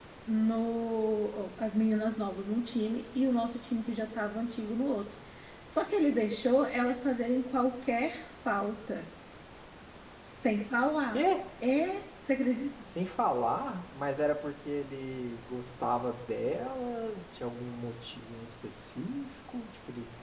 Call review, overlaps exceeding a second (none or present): none